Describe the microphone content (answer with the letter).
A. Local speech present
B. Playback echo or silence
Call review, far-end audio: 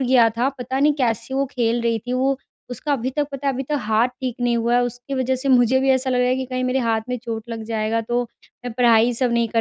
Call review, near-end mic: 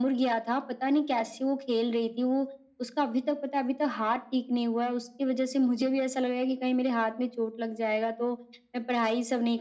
B